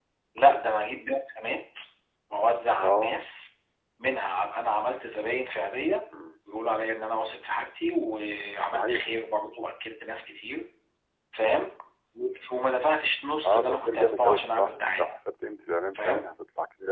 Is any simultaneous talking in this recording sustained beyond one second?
Yes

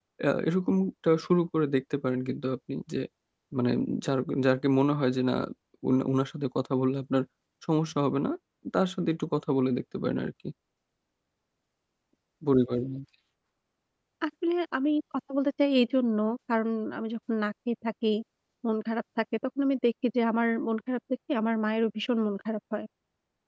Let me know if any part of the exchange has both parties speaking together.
No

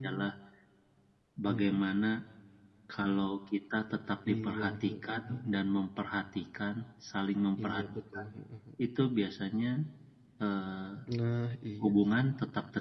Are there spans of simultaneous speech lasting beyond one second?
Yes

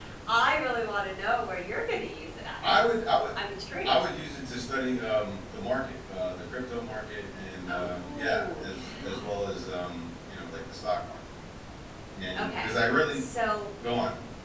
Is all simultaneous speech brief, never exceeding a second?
No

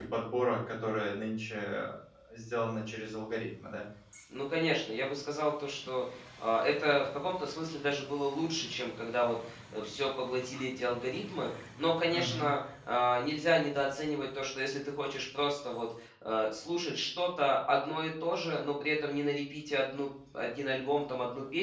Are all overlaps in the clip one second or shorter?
Yes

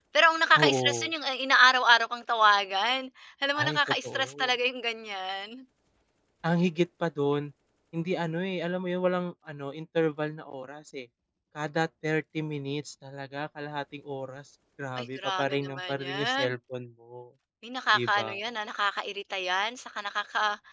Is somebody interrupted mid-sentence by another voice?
Yes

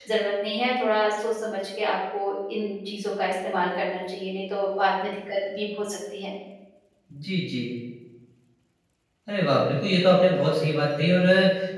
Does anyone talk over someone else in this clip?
No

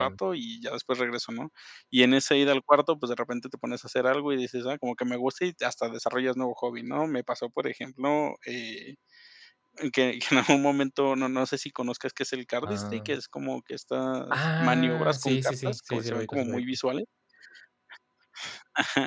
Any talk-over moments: Yes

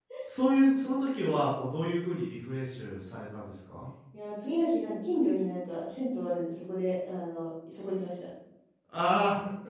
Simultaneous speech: No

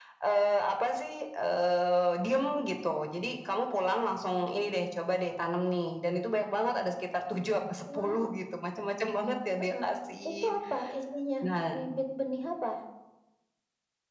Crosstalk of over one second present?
No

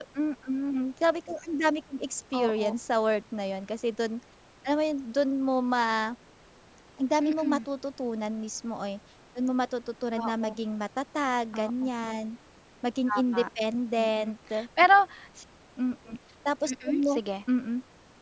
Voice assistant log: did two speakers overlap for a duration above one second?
No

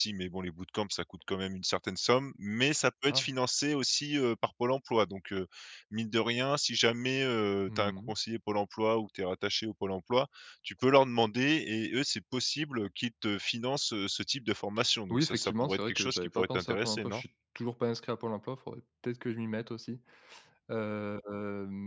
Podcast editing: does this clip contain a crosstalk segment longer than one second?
Yes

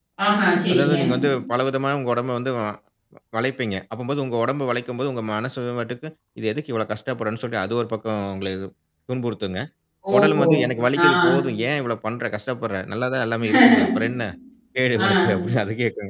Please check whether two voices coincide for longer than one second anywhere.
No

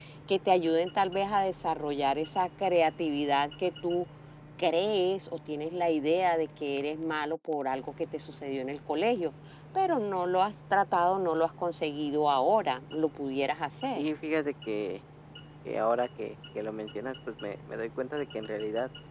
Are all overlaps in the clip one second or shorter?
Yes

